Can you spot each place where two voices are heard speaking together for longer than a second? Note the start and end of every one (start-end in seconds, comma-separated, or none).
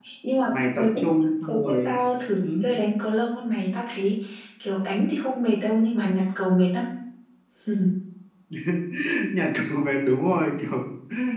none